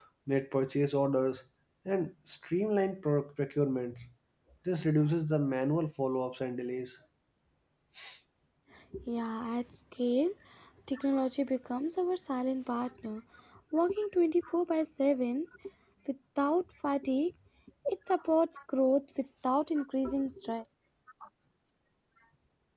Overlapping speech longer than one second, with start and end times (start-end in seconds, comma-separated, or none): none